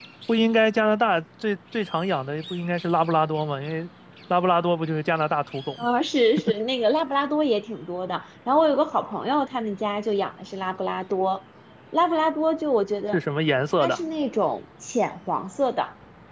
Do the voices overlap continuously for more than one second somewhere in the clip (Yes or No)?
No